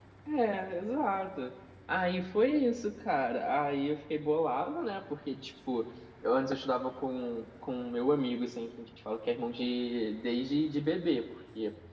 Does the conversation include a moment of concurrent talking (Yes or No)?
No